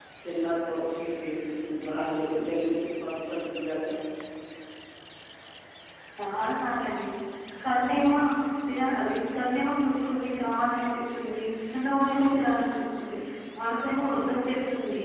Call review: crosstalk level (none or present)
none